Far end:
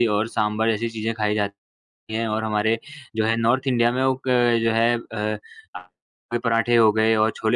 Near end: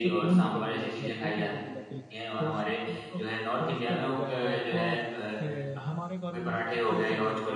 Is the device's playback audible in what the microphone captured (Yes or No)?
Yes